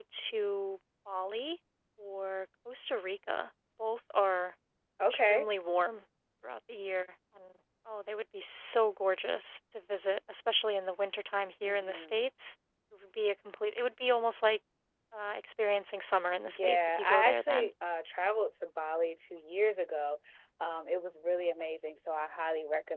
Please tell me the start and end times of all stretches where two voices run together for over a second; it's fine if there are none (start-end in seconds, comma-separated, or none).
16.4-17.7